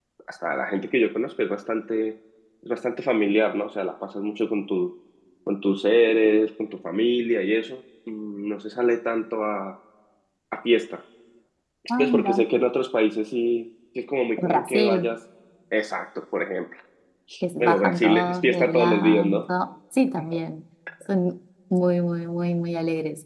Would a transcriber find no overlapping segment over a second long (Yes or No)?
No